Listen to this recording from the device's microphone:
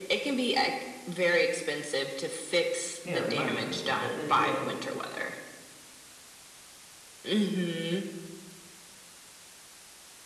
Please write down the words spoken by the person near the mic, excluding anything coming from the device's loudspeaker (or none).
you know, money spending. But then again